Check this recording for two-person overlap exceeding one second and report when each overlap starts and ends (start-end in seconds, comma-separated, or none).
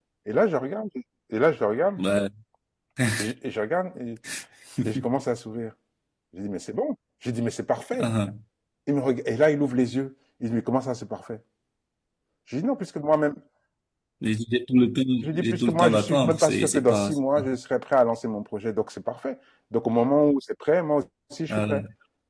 15.2-17.4